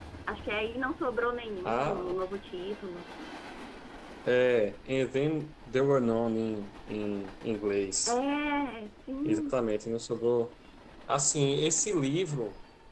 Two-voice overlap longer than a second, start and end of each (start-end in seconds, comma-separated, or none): none